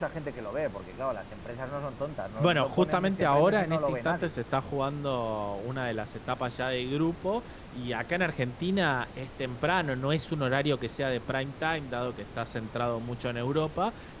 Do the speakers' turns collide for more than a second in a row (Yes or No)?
Yes